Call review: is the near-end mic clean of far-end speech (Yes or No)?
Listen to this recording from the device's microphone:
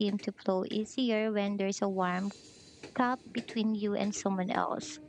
Yes